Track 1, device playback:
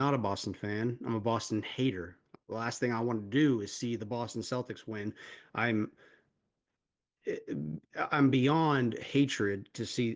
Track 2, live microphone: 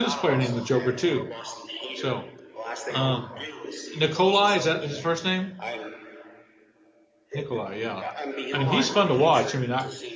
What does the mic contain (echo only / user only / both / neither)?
both